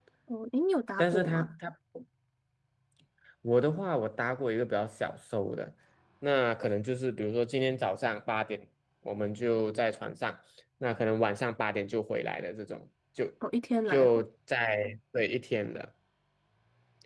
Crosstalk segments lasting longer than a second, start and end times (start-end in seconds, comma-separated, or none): none